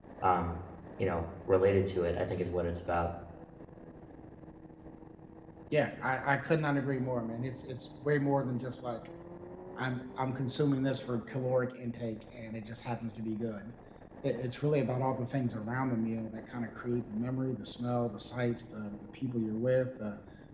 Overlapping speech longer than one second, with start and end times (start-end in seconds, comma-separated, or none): none